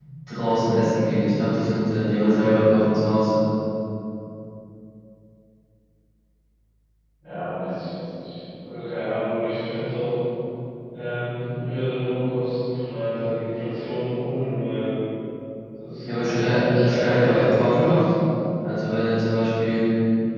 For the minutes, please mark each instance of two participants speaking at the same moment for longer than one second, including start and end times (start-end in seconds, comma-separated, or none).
16.0-18.0